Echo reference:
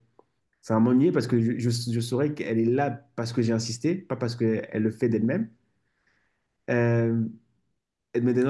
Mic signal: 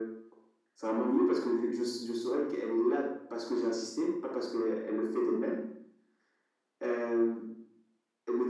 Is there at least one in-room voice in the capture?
No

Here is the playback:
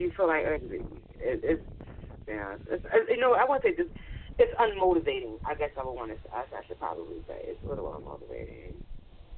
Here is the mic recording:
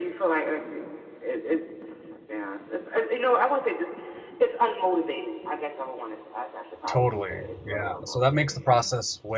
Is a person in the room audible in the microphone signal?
Yes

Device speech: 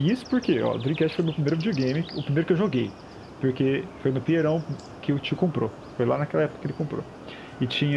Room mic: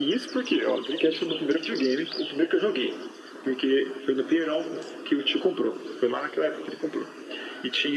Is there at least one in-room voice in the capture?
No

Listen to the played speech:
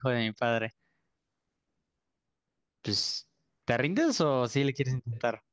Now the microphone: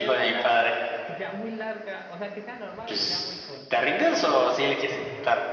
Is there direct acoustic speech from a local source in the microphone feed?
Yes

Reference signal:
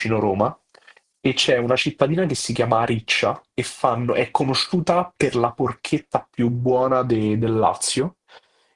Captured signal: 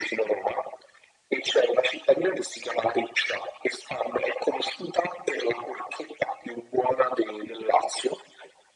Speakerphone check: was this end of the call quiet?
Yes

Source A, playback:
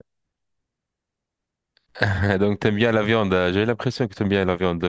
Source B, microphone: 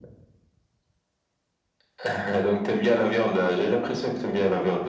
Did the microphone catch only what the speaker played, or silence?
Yes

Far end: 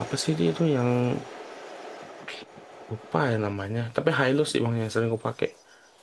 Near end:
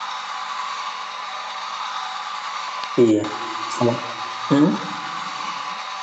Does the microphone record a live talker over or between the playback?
Yes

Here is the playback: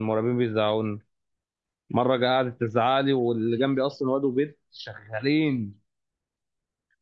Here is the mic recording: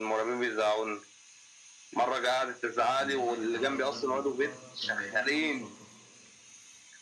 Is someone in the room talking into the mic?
Yes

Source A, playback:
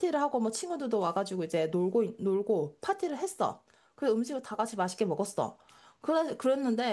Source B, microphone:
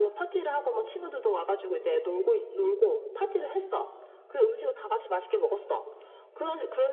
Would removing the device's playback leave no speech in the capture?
Yes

